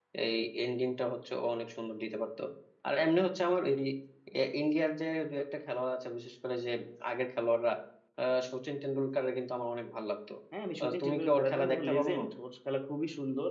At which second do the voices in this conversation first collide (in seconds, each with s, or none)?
10.8 s